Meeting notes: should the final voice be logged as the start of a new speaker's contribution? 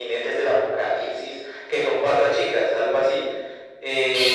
Yes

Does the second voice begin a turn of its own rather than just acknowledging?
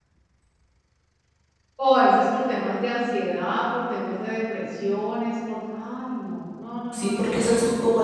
Yes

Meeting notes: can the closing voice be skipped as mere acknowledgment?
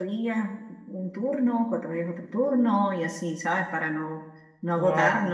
Yes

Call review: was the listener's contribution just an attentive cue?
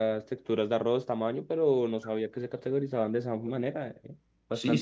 No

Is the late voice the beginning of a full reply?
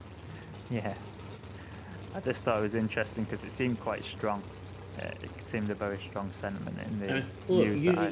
Yes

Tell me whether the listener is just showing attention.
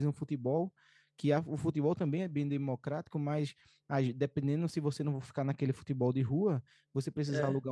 Yes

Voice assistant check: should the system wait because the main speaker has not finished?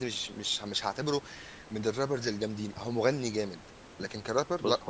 No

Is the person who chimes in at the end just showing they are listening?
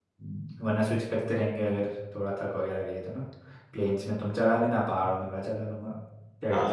No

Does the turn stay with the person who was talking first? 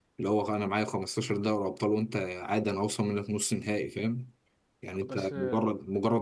Yes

